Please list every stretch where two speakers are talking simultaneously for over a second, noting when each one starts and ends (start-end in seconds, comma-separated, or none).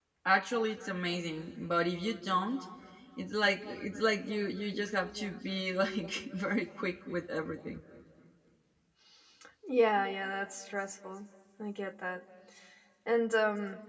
none